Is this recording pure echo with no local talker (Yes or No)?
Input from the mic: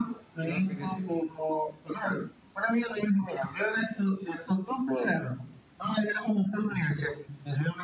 No